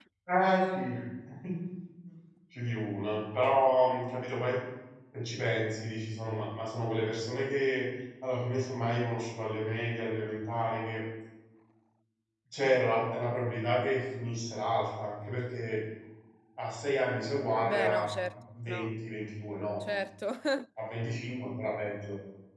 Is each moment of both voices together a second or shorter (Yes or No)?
Yes